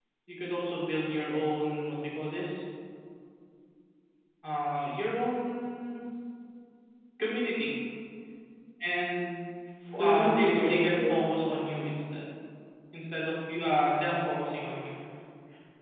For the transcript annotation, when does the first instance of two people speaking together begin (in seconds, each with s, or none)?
10.0 s